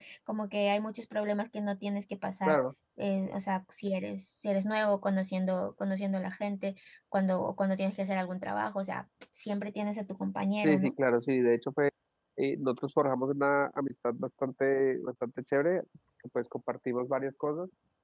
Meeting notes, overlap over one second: none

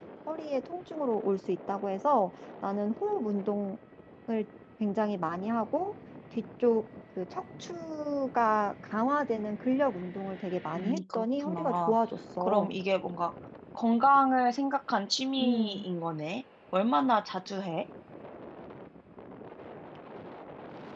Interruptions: present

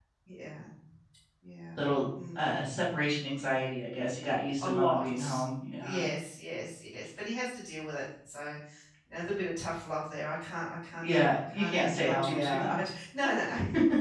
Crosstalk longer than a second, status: present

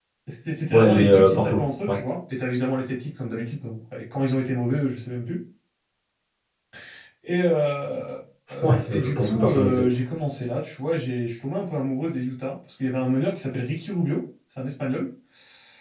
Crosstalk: present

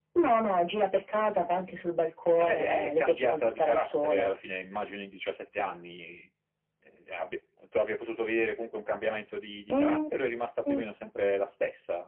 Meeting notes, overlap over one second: present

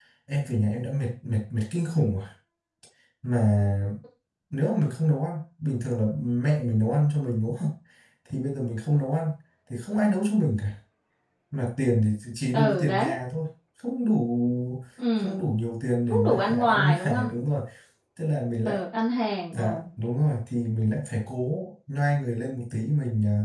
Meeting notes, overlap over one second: present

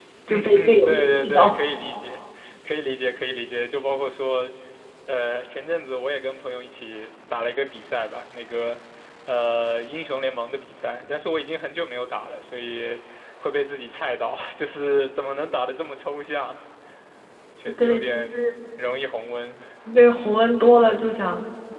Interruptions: present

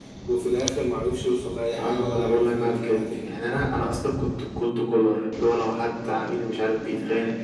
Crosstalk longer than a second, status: present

